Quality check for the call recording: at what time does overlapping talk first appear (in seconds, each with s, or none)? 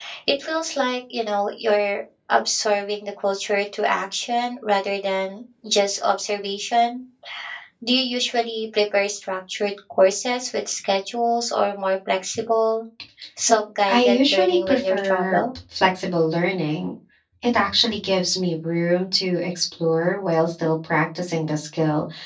13.9 s